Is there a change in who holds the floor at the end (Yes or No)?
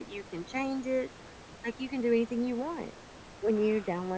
No